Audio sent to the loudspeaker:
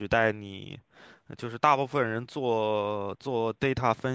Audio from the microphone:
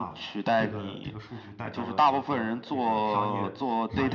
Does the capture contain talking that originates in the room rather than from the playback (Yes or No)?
Yes